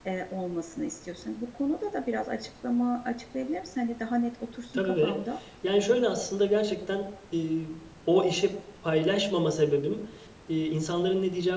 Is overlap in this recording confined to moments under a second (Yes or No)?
Yes